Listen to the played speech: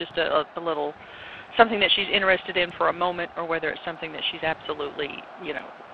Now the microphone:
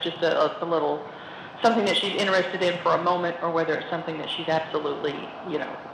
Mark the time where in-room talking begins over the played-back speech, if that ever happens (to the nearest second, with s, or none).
none